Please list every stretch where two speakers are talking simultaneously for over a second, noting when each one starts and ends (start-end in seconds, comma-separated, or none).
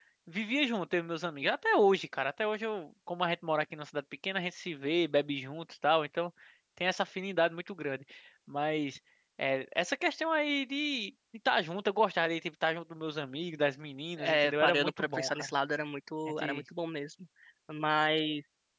14.2-15.5